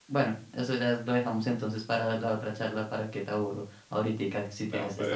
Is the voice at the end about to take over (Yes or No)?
Yes